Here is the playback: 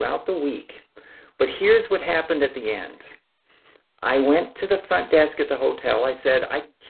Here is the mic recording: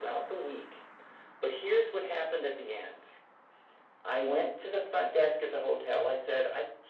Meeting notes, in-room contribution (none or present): none